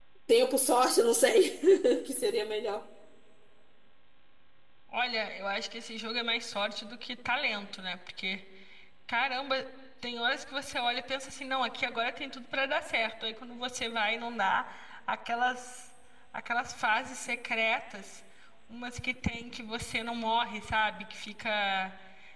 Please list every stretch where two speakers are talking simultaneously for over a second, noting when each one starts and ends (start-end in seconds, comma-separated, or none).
none